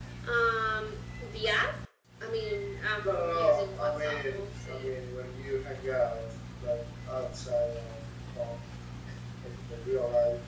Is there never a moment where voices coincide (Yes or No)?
No